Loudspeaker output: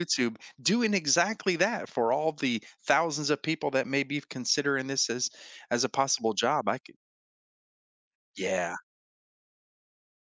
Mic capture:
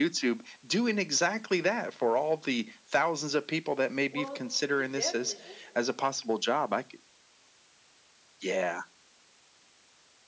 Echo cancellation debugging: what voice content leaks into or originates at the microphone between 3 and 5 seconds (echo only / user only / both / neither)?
both